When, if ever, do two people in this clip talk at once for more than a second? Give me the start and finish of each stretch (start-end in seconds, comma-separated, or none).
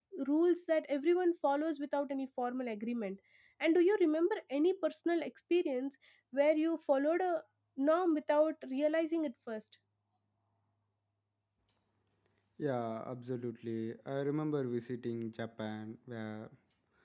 none